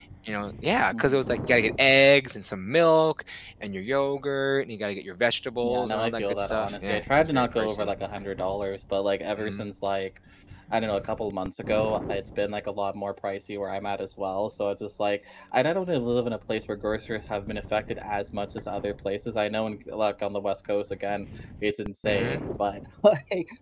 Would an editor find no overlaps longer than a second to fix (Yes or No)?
No